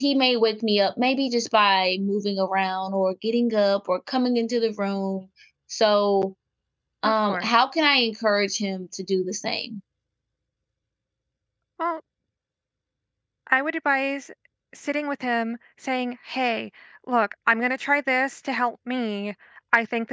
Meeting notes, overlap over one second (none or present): none